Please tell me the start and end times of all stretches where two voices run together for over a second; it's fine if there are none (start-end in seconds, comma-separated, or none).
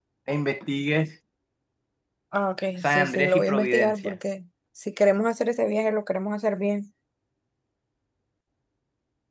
2.8-4.2